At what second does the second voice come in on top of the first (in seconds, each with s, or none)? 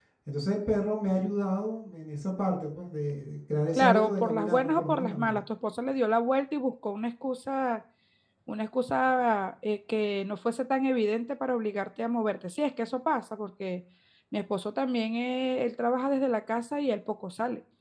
3.7 s